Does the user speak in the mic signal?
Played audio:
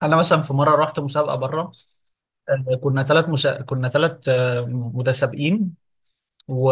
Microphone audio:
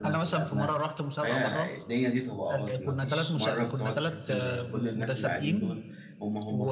Yes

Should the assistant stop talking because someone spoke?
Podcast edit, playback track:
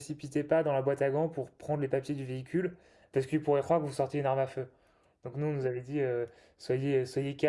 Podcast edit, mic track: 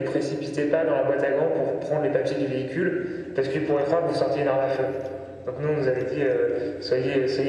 No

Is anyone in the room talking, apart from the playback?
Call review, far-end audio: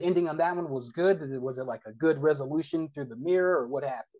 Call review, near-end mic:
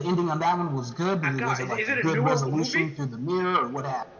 Yes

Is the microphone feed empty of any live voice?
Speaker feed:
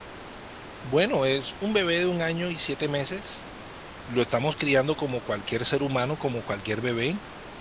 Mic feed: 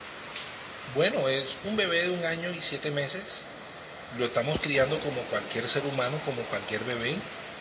Yes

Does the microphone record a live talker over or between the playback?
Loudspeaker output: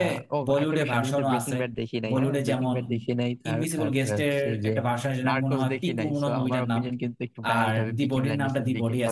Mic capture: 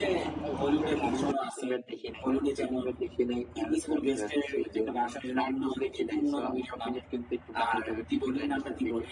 No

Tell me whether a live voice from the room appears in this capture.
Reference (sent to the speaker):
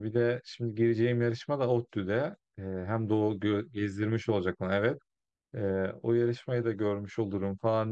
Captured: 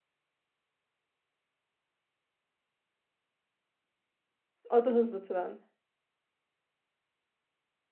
Yes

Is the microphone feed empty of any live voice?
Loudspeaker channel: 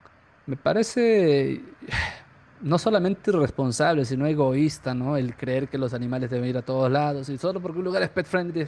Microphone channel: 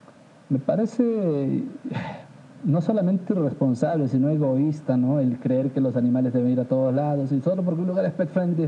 Yes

